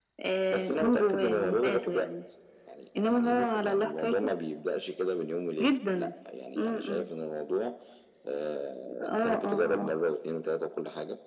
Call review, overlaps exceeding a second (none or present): present